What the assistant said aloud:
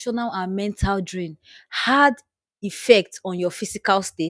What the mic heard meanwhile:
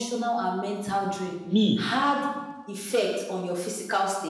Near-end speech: present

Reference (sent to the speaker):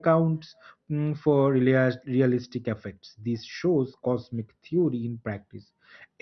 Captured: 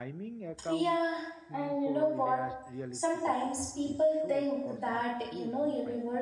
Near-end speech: present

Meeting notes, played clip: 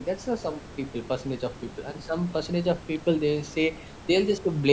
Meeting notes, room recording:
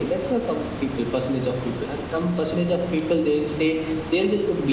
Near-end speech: none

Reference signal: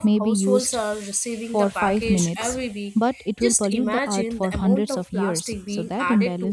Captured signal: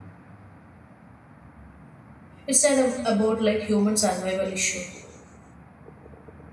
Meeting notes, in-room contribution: present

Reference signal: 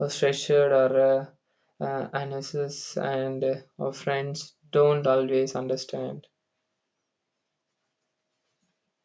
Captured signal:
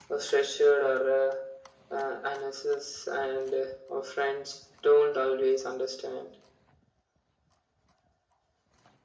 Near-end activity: none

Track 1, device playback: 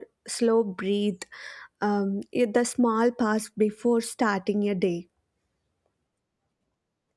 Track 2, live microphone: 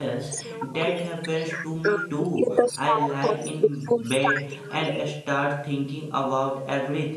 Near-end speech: present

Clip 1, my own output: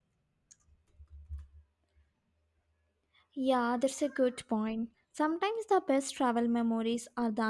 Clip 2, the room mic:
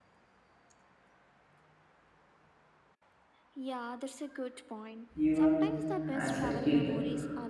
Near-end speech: present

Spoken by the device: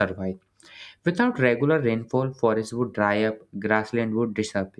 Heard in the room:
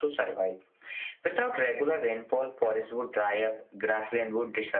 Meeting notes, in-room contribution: none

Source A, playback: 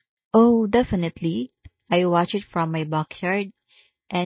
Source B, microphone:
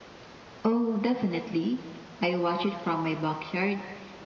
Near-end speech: none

